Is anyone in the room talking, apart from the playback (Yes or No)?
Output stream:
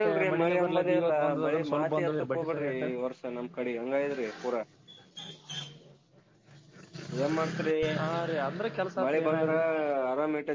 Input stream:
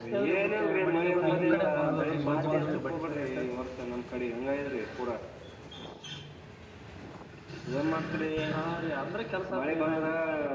Yes